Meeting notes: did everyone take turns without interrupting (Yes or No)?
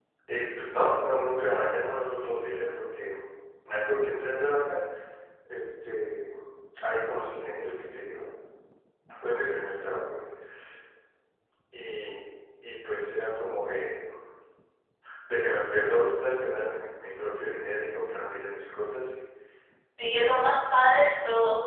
Yes